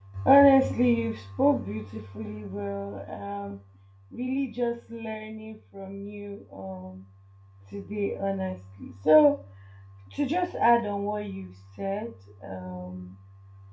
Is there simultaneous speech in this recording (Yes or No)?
No